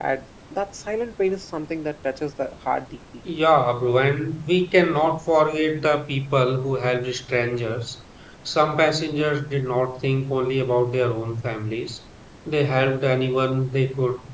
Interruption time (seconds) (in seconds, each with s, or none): none